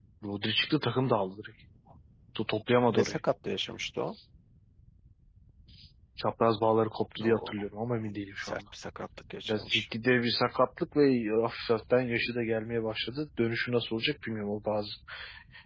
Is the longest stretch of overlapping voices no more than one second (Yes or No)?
Yes